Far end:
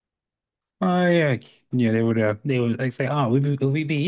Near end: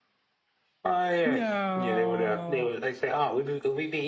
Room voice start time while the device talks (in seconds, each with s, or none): 1.2 s